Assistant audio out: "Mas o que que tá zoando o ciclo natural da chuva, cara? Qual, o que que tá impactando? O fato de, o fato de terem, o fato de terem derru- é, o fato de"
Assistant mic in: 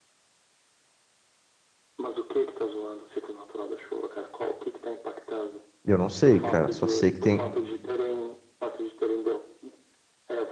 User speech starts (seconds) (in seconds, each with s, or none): 5.8 s